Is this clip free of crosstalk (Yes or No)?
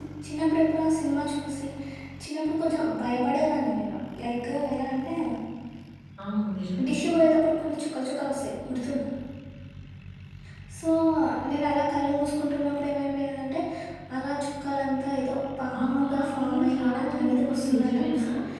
No